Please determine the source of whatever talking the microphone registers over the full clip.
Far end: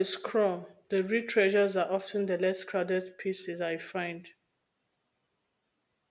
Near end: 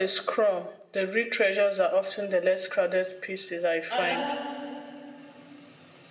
both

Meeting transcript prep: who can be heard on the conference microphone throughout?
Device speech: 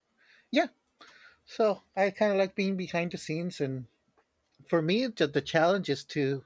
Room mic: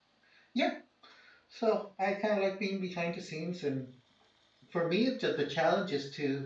echo only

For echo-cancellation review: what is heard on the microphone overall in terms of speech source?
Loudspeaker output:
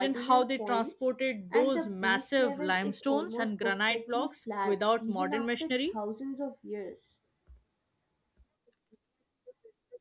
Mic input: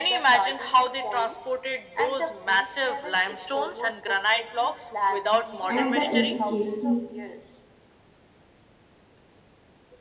both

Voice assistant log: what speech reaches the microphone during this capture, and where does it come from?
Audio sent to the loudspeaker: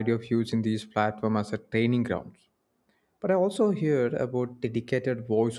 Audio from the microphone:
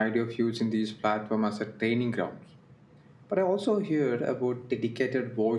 echo only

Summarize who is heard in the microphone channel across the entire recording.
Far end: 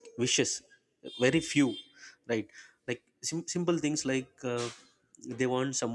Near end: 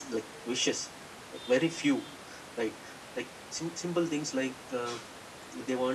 echo only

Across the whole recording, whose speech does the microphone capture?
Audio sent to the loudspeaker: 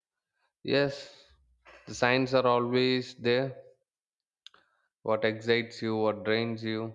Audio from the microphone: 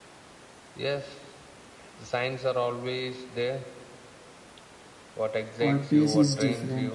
both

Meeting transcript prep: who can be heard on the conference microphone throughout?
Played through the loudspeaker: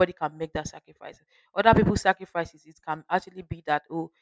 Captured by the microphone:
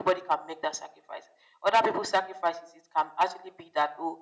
echo only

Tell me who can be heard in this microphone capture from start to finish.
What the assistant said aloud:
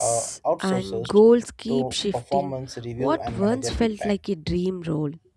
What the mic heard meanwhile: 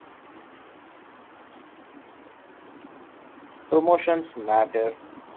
user only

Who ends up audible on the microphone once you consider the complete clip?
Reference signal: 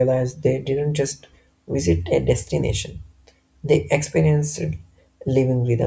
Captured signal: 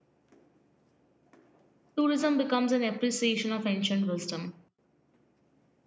user only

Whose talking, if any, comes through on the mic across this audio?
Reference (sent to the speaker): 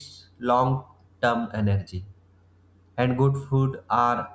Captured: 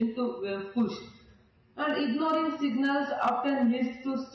user only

